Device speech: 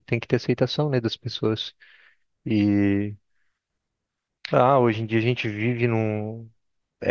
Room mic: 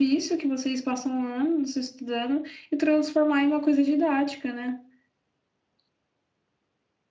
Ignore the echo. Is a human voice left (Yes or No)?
Yes